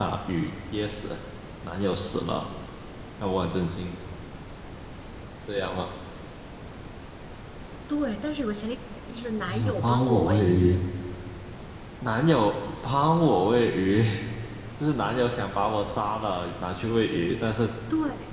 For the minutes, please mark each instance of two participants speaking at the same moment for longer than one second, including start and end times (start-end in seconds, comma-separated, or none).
9.5-10.8